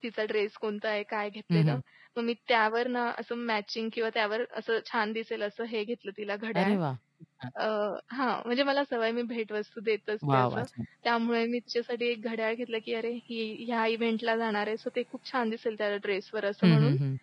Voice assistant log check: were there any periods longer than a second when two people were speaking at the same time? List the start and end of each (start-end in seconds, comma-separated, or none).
none